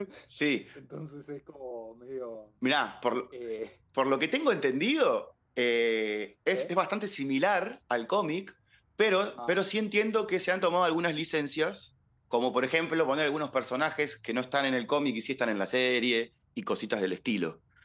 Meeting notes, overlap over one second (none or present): none